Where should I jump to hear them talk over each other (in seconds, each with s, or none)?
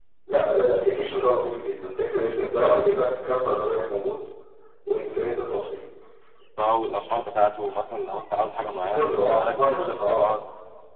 8.8 s